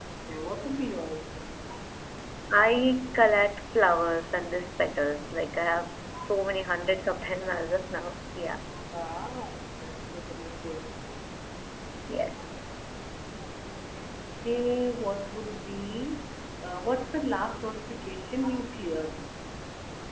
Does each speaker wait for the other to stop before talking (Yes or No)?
Yes